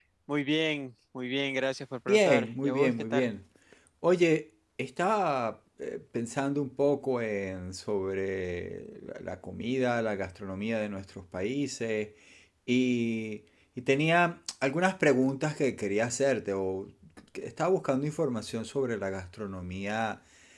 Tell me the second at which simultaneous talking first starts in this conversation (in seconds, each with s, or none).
2.1 s